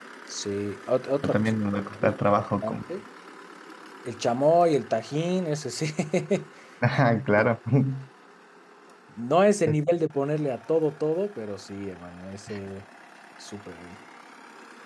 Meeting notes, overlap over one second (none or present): present